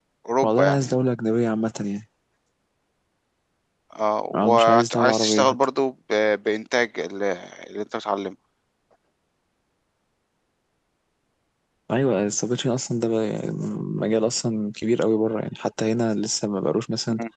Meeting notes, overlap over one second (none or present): present